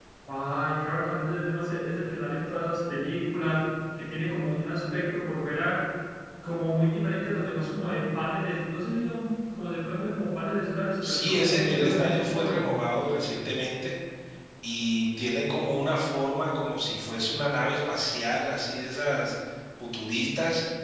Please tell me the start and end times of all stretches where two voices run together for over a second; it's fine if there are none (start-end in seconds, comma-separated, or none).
11.0-12.7